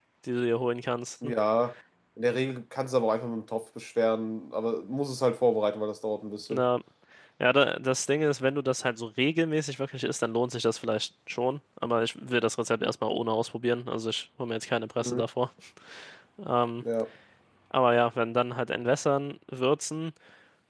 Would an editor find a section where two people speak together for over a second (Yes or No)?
No